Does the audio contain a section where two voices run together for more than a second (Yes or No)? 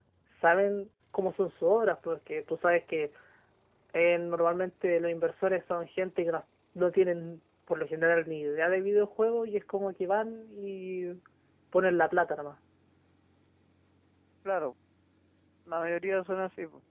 No